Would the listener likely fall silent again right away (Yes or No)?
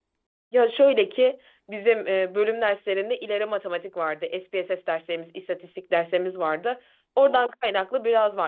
Yes